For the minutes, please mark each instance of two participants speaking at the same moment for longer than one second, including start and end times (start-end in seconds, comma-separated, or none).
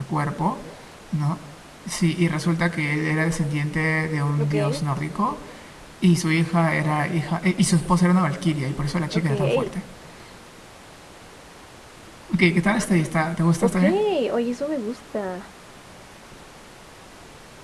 none